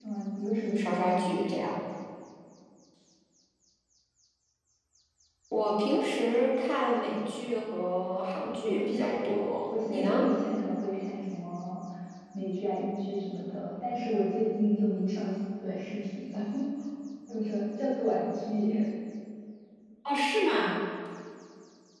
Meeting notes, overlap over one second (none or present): present